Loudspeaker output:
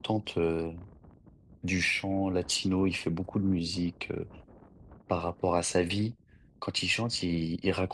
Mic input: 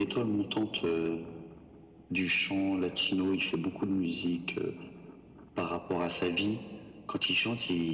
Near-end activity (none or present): none